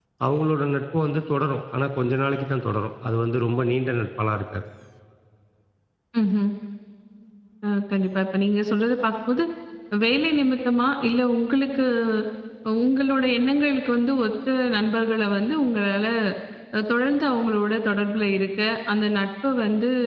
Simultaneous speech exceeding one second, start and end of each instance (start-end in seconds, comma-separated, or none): none